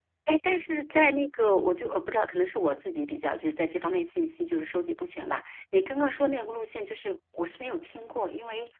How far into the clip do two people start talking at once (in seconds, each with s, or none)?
none